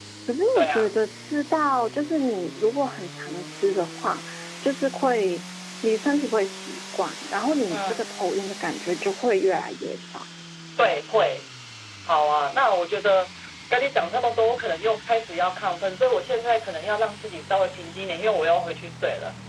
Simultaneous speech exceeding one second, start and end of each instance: none

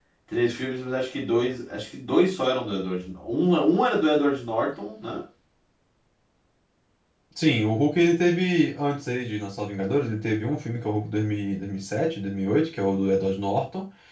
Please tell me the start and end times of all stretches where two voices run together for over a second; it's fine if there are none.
none

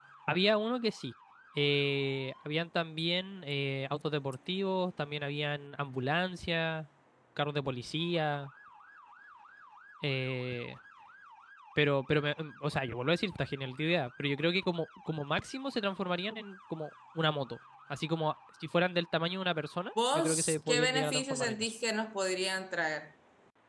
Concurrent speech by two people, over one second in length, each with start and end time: 20.1-21.7

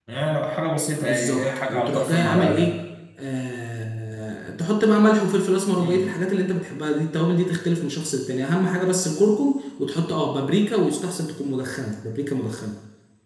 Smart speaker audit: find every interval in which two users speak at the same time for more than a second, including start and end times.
1.0-2.7

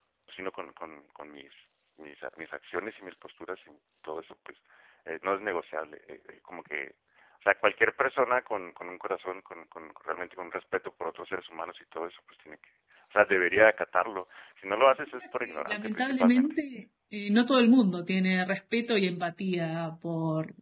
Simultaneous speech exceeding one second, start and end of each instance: 15.1-16.5

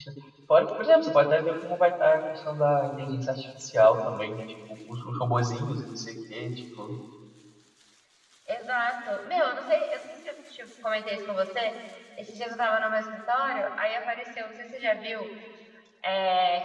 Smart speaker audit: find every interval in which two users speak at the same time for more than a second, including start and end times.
none

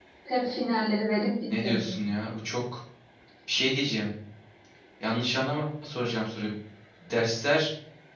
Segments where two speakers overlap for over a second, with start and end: none

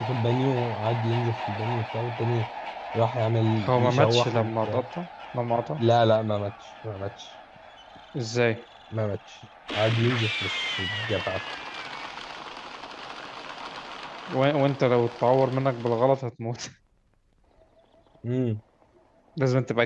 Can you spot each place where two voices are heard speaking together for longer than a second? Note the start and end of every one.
3.6-4.9

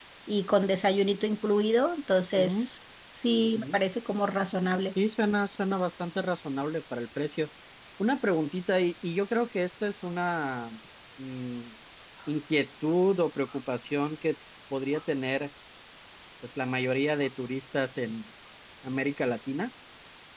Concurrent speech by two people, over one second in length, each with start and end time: none

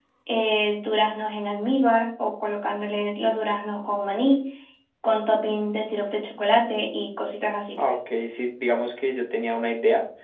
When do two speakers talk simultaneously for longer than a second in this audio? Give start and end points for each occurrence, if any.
none

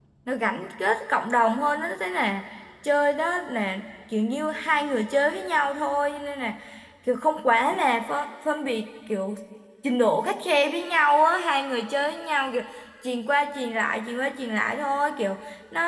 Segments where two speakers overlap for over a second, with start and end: none

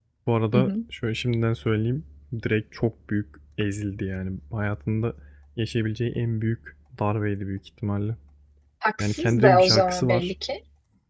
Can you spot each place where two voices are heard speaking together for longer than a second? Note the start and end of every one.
9.0-10.3

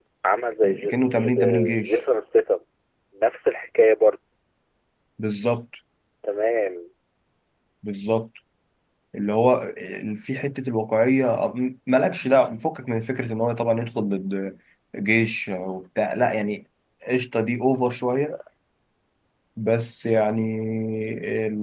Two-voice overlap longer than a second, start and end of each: 0.6-2.0

